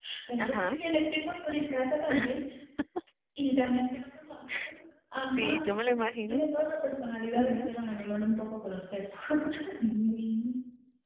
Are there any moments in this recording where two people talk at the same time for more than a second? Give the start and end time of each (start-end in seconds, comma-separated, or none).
none